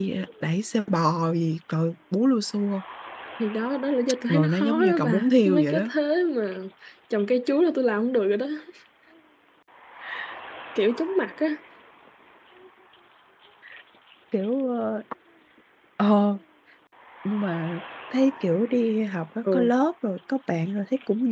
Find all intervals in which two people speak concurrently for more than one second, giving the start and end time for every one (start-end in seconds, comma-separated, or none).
4.3-5.9